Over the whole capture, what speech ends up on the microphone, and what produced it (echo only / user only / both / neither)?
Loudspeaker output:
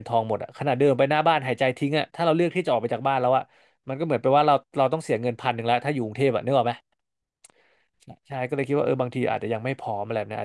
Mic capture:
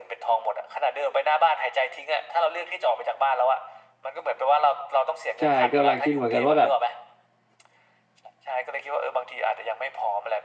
both